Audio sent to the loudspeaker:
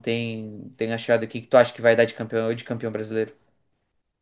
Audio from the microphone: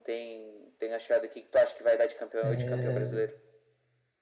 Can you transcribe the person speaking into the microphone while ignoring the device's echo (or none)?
É,